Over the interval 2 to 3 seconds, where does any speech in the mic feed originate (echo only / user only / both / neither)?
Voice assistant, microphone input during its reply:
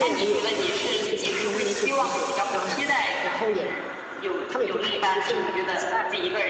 both